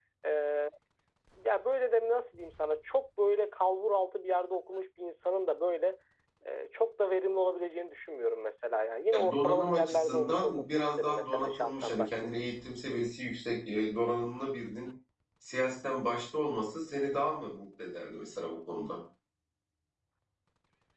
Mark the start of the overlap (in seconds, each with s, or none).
9.1 s